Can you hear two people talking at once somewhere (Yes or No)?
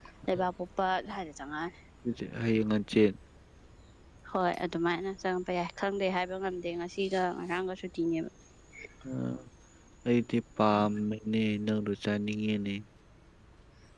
No